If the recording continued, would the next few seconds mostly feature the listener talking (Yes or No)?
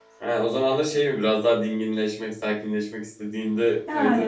Yes